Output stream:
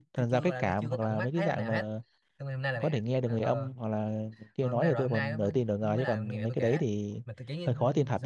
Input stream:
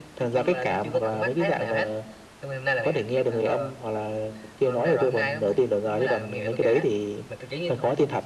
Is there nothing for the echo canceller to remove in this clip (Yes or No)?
No